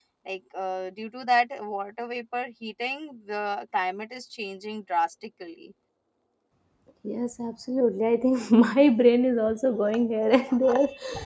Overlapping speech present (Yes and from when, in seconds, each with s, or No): No